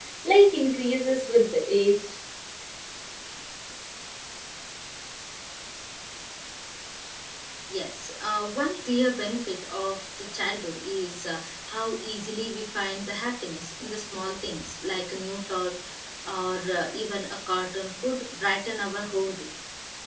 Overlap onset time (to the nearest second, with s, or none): none